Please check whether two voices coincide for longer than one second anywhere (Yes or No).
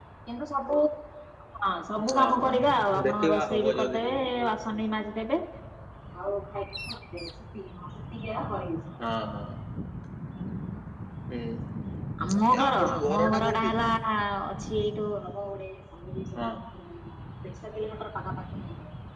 Yes